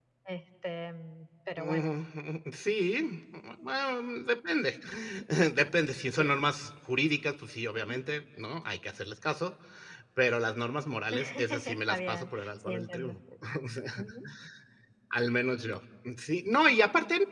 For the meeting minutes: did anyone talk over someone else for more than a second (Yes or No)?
Yes